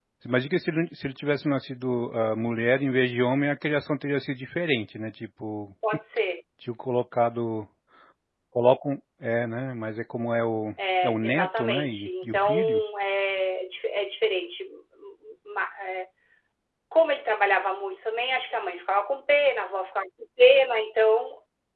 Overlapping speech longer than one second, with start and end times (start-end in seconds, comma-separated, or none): 11.0-12.8